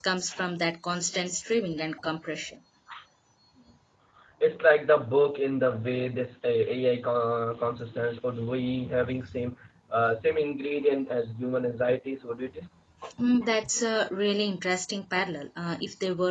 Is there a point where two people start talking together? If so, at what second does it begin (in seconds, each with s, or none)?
none